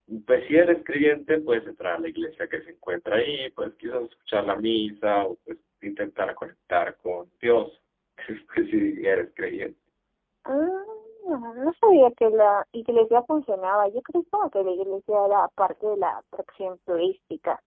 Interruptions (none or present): none